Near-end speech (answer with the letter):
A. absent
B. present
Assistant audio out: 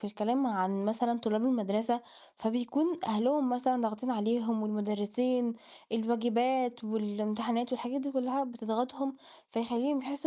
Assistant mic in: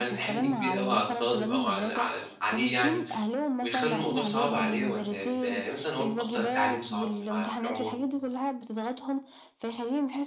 B